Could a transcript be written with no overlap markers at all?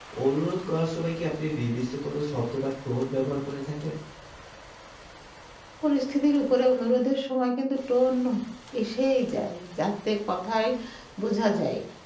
Yes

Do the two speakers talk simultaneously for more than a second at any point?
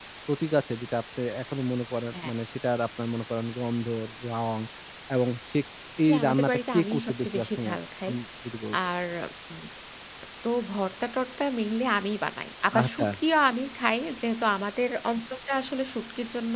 Yes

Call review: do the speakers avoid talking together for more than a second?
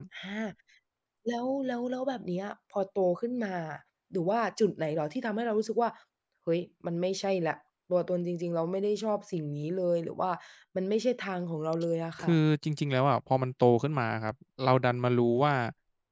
Yes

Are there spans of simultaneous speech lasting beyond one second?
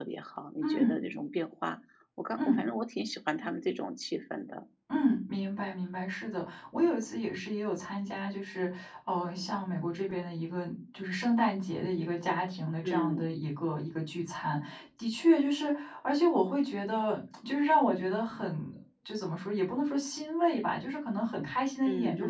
No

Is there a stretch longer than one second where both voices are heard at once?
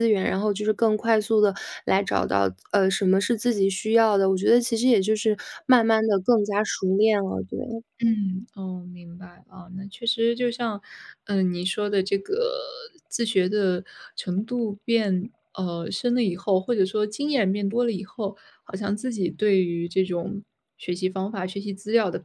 No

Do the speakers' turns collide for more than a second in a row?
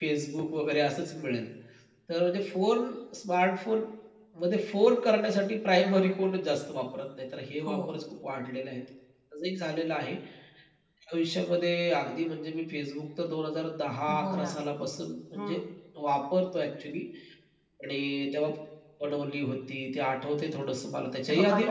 No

